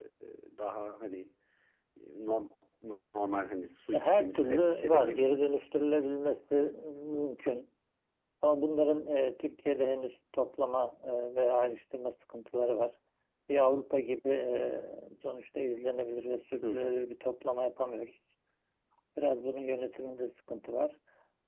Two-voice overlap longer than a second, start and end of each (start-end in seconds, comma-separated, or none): 3.9-5.4